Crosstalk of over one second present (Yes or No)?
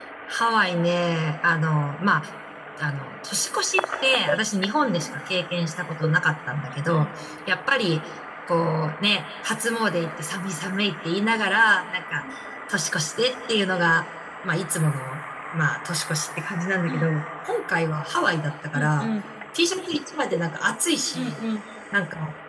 No